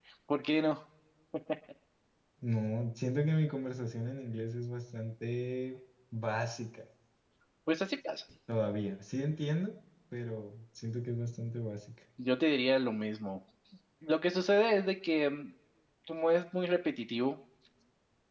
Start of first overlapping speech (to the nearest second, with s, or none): none